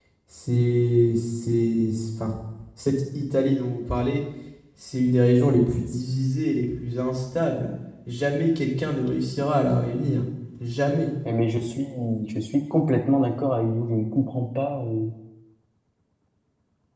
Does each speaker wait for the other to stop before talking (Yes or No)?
Yes